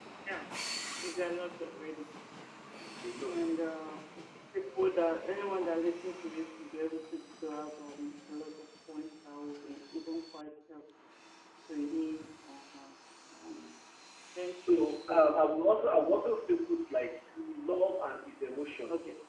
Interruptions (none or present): present